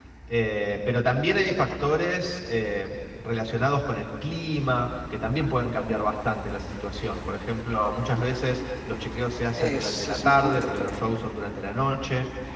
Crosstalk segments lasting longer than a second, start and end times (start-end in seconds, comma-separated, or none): 9.5-11.0